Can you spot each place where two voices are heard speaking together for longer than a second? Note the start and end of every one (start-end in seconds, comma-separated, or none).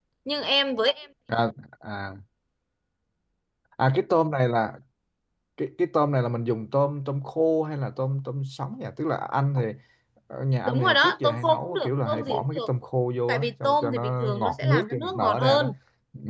10.6-12.6, 13.3-15.6